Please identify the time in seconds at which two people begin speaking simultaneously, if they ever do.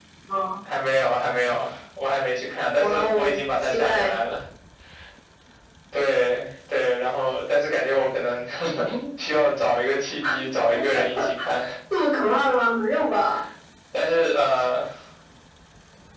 2.8 s

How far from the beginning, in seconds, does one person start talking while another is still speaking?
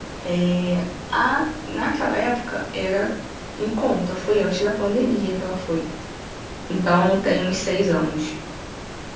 none

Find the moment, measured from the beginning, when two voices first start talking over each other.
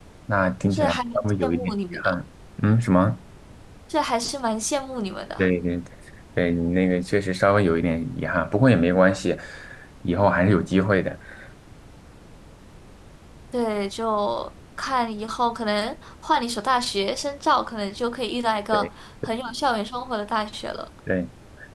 0.7 s

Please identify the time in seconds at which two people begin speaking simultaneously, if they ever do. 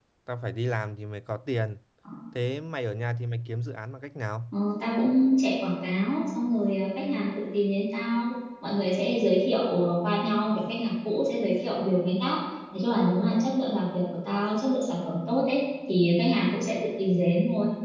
none

